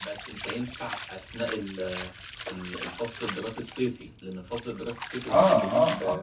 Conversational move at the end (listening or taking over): taking over